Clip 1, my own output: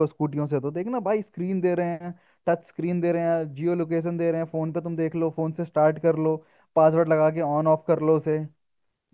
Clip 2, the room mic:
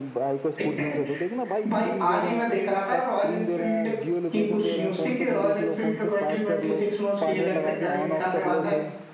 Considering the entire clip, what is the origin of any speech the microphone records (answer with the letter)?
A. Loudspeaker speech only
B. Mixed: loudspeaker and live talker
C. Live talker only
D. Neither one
B